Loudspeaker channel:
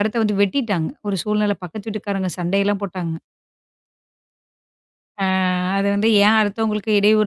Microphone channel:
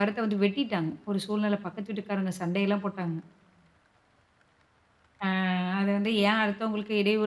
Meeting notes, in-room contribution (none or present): none